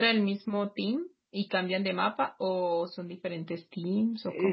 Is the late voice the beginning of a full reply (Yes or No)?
Yes